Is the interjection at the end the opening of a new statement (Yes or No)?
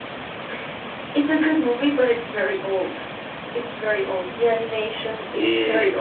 Yes